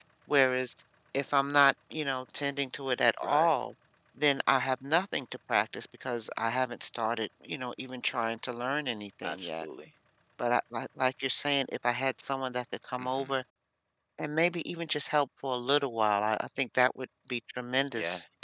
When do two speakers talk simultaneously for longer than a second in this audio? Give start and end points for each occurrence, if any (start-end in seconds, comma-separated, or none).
none